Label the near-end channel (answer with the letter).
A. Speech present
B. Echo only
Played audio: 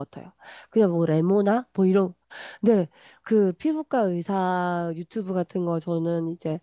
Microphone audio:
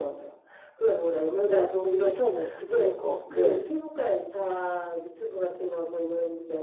A